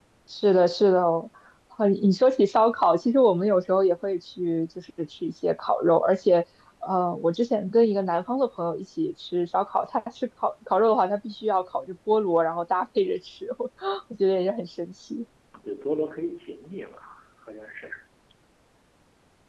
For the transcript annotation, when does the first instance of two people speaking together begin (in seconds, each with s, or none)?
none